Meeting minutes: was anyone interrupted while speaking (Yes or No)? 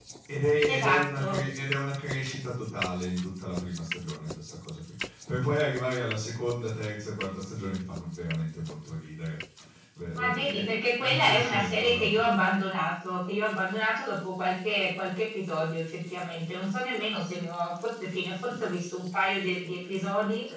Yes